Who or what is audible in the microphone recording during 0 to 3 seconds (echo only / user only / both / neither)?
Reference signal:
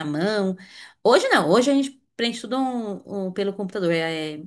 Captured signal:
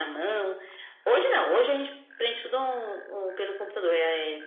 echo only